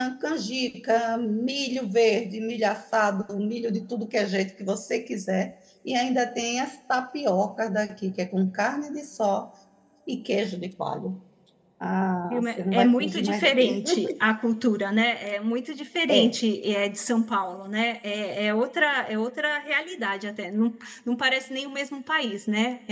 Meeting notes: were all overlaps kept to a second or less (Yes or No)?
No